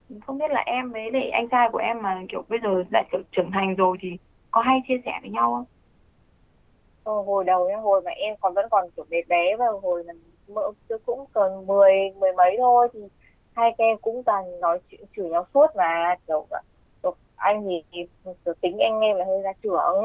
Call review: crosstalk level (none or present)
none